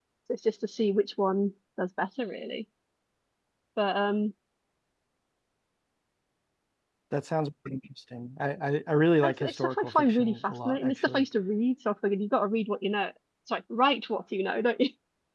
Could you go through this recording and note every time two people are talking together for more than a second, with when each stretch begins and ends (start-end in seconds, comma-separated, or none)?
9.2-11.2